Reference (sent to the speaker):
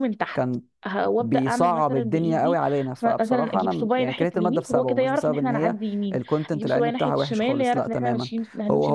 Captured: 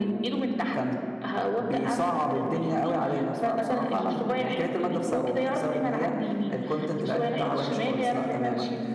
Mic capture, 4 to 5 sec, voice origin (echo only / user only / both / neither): echo only